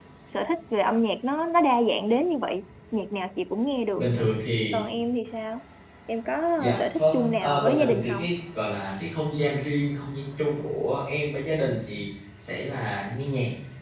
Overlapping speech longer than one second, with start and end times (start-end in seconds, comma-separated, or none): 6.8-8.2